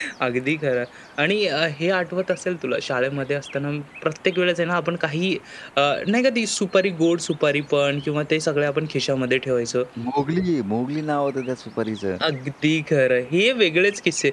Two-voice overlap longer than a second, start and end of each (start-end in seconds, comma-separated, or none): none